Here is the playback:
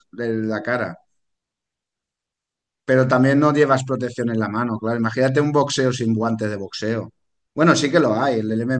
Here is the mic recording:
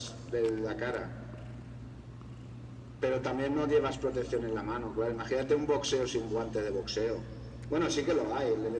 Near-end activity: none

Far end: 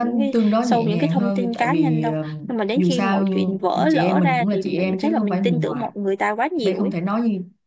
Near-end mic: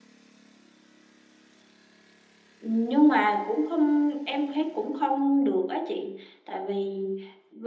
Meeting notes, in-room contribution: present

